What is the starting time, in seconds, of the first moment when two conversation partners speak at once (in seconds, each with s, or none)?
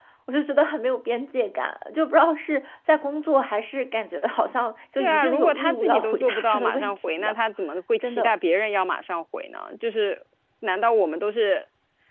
5.0 s